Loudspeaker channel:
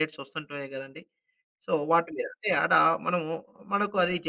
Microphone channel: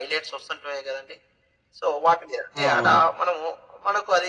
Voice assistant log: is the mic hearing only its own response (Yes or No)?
No